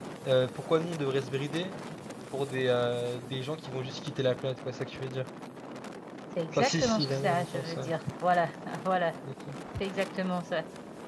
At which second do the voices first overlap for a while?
6.5 s

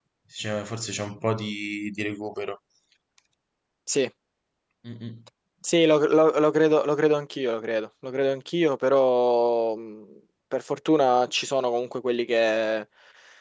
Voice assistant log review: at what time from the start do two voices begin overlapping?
none

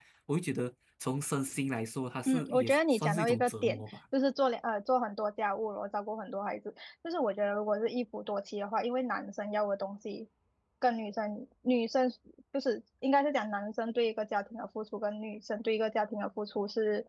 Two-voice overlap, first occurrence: 2.3 s

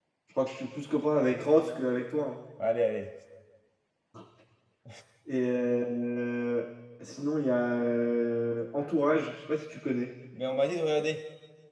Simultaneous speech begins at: none

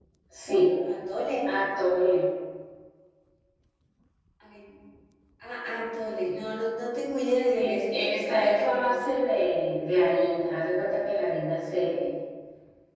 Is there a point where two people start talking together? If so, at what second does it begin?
7.6 s

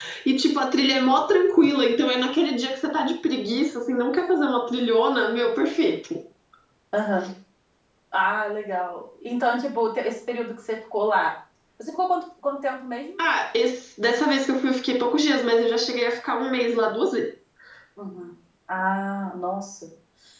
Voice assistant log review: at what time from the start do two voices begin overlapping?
none

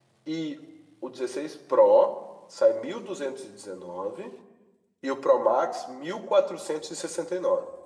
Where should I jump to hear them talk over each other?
none

